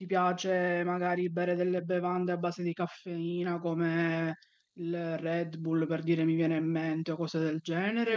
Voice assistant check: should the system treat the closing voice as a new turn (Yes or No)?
Yes